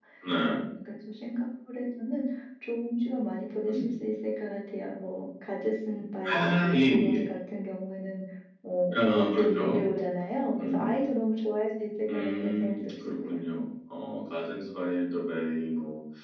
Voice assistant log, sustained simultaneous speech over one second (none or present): present